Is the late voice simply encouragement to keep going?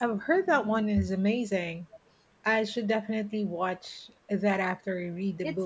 No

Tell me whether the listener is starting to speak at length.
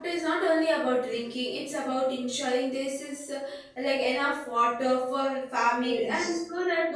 No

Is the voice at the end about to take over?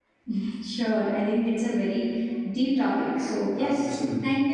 No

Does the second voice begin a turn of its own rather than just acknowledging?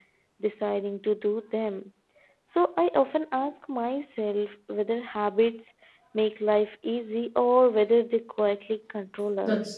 Yes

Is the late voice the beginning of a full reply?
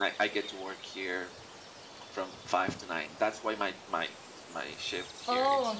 Yes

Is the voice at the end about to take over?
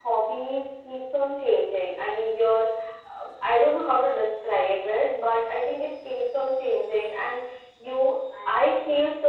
No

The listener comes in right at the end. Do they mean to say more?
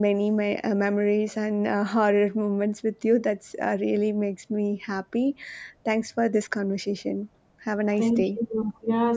Yes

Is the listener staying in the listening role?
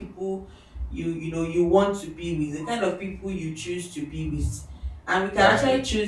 Yes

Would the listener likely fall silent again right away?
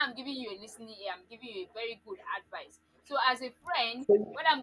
Yes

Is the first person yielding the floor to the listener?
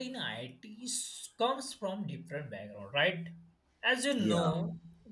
No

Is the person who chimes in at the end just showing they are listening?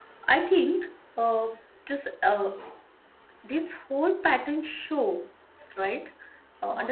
Yes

